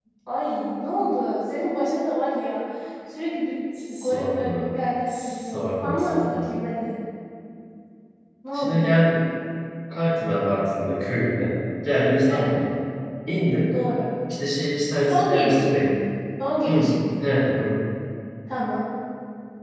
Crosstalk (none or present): present